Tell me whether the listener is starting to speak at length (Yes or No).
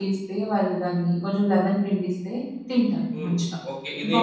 Yes